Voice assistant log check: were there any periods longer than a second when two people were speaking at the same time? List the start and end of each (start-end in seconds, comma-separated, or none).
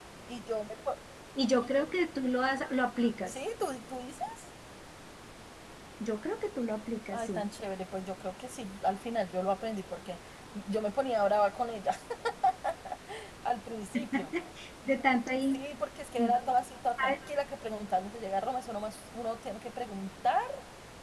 none